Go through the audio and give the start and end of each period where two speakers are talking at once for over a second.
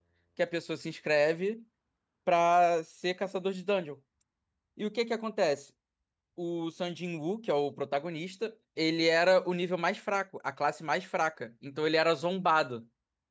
none

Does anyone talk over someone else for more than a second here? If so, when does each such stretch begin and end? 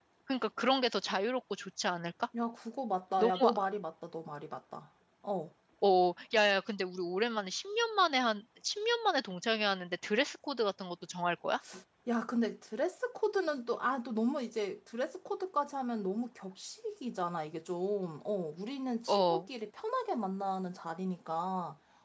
none

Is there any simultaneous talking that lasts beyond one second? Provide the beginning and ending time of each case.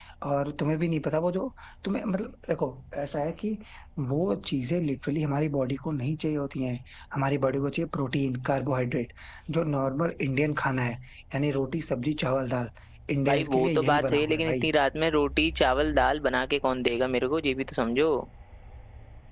13.3-14.7

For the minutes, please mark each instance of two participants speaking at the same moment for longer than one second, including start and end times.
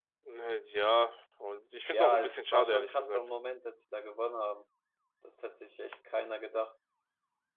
1.9-3.2

